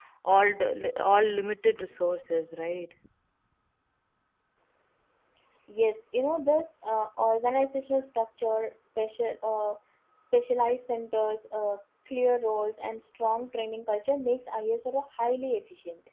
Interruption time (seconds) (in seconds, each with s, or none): none